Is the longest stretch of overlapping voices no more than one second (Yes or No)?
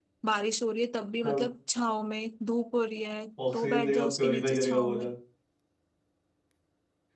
No